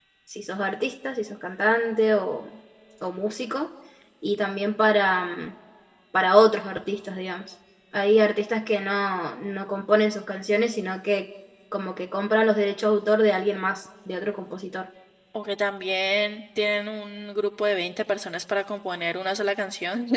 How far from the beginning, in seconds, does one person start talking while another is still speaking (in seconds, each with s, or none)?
none